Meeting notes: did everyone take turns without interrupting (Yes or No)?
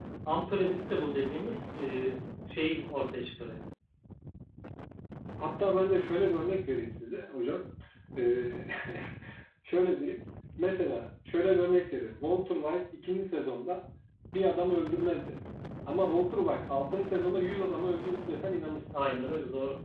Yes